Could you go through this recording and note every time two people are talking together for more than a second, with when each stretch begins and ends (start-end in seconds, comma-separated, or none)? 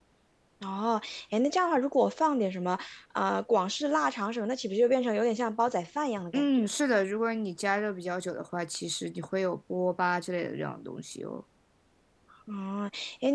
none